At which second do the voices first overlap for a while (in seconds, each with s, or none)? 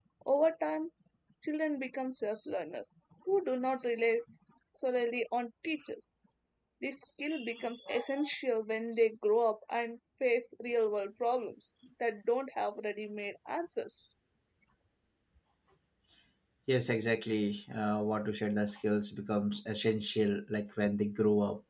none